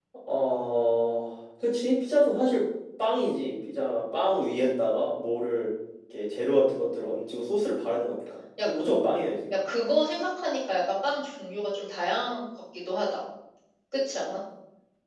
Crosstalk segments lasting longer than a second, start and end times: none

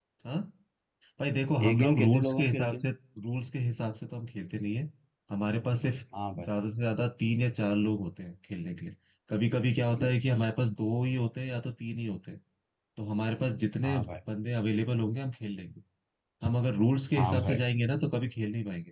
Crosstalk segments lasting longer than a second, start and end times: 1.6-2.8

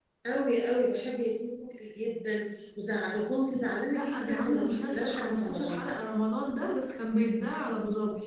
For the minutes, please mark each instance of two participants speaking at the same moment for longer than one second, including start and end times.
3.9-5.9

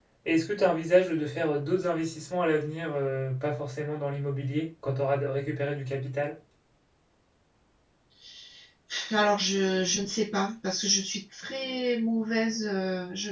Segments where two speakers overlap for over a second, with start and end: none

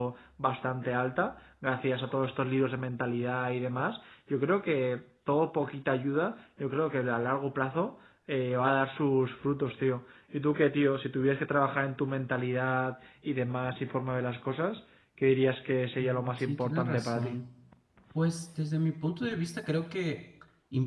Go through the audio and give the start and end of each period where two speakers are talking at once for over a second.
16.0-17.4

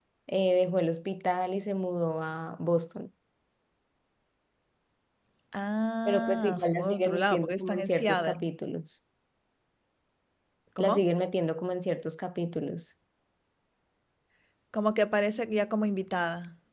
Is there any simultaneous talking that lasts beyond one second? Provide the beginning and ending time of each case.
6.1-8.4

